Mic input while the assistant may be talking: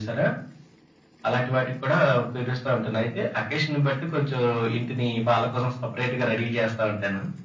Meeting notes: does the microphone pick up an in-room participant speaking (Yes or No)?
No